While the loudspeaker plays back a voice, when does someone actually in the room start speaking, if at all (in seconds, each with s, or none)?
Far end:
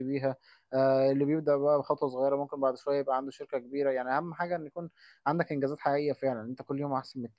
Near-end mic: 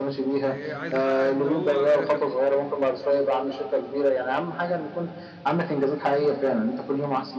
0.4 s